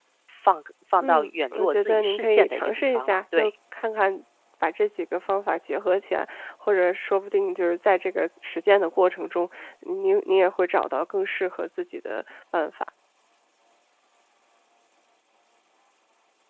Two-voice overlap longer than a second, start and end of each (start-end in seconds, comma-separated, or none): 1.0-3.5